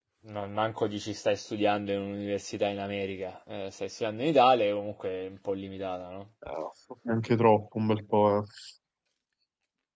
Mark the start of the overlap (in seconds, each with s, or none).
none